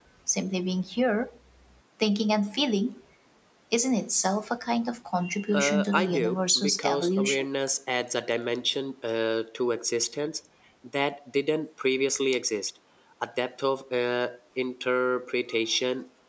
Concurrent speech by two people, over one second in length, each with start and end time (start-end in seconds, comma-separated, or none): 5.5-7.5